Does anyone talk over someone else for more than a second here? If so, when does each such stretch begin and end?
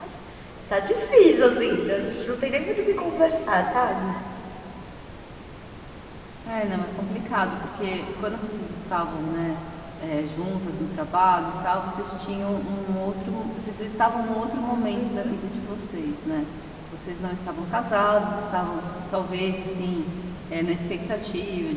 none

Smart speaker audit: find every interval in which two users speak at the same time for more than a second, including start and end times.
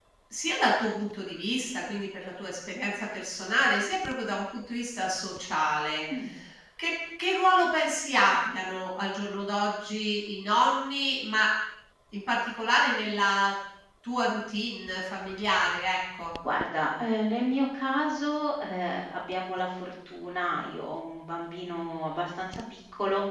none

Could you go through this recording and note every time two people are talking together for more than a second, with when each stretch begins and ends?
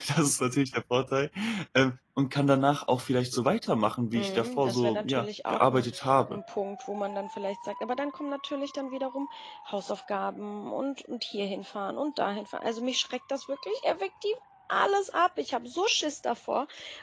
4.1-5.9

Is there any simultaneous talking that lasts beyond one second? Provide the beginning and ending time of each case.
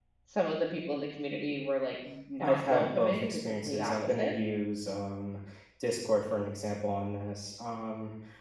2.4-4.3

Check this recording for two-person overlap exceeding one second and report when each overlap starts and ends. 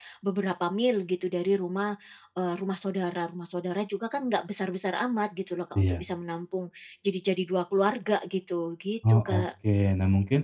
none

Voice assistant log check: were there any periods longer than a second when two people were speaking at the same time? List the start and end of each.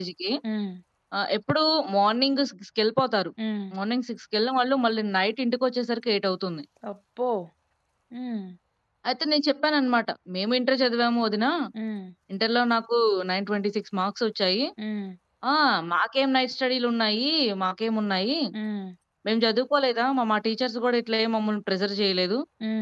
none

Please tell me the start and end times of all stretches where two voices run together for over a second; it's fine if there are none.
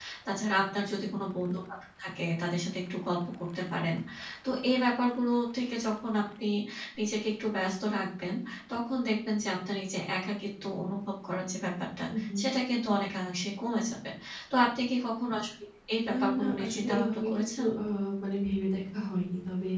16.1-17.6

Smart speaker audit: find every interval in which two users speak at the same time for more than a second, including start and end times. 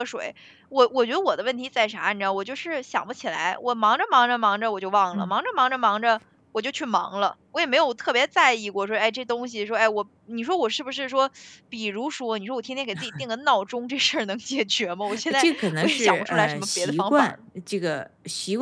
15.1-17.3

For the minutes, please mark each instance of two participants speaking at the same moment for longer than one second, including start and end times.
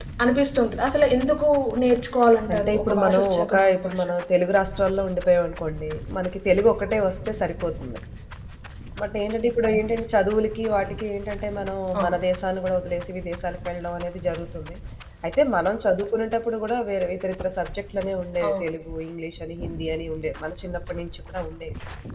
2.5-4.0

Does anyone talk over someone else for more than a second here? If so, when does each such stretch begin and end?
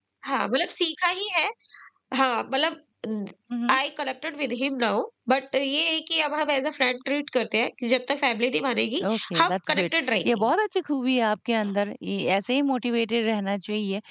9.1-10.5

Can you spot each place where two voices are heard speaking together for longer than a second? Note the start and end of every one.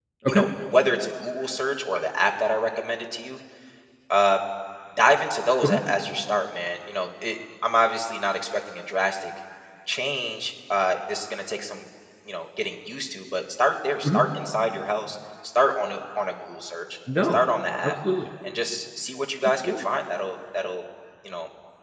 none

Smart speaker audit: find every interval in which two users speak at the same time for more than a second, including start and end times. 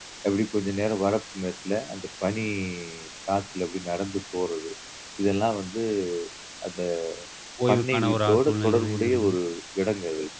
7.7-9.3

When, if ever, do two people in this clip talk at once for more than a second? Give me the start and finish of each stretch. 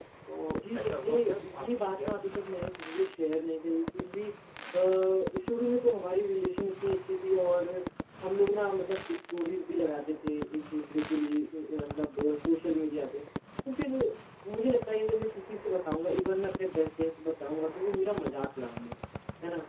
0.7-2.1

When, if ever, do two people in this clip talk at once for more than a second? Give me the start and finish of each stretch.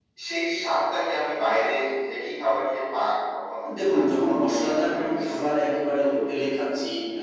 3.9-5.4

